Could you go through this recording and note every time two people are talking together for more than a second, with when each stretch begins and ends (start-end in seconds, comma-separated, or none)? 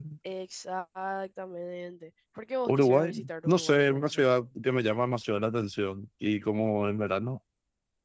2.7-4.2